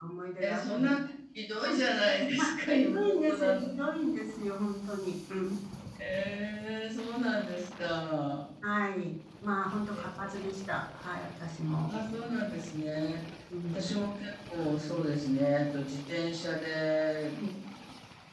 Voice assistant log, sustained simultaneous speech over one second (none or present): present